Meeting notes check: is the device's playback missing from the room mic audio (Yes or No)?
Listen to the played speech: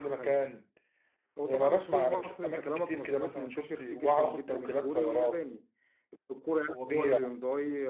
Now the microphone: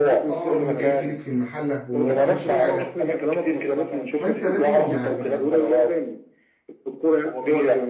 No